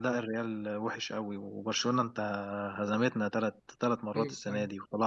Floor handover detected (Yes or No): No